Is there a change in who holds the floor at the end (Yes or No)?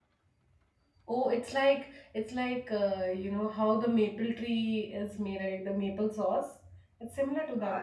Yes